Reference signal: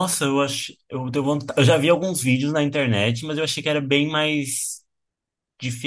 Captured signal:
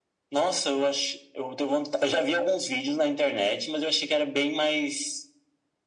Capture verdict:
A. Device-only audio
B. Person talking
A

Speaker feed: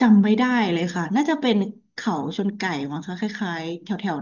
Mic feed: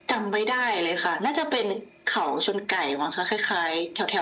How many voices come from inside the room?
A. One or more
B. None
B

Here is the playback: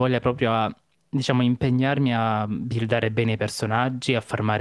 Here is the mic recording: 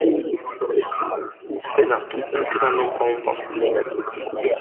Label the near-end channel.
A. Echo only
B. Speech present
B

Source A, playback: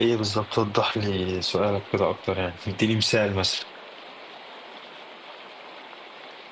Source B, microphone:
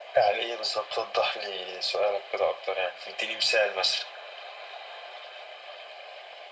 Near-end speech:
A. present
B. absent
B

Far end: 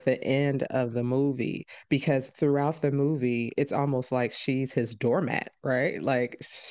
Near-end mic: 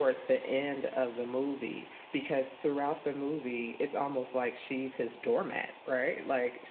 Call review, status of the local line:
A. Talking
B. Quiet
B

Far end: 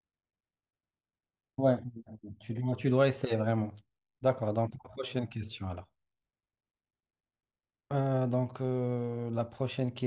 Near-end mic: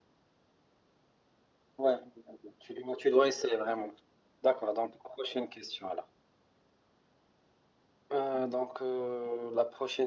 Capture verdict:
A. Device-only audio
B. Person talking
A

